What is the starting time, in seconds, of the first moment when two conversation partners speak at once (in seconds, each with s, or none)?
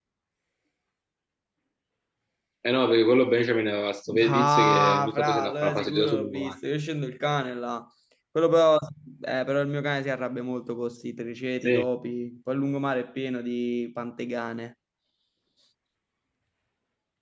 4.1 s